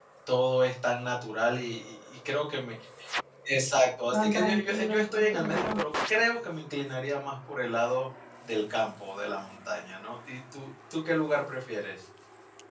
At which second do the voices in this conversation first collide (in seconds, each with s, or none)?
4.1 s